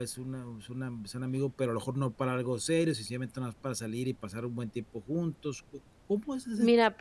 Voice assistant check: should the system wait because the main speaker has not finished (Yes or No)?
No